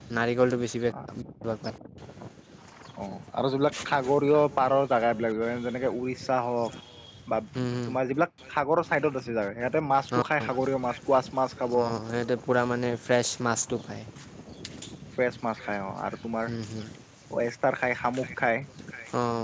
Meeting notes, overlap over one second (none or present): none